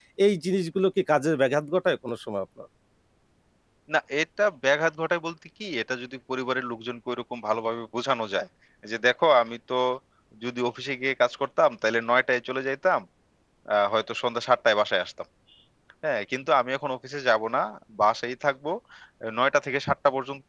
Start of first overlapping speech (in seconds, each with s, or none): none